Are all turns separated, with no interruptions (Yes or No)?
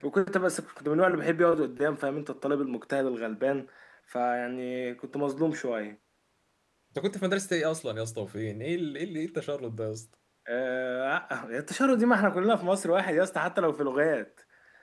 Yes